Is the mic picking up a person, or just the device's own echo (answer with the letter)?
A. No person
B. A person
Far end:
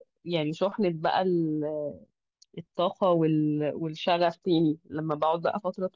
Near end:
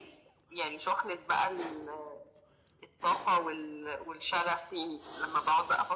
A